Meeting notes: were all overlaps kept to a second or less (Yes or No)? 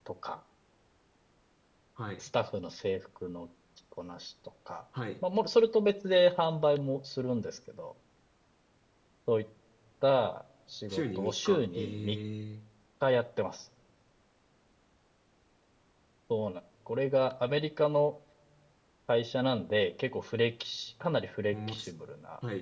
No